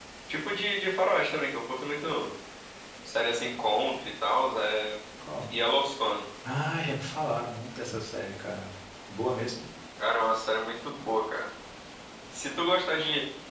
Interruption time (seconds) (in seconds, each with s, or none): none